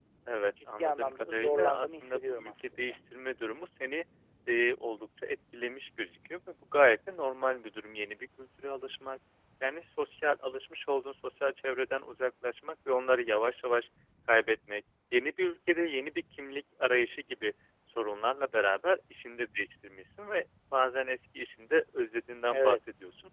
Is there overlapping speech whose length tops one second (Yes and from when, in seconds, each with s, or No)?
Yes, from 0.8 s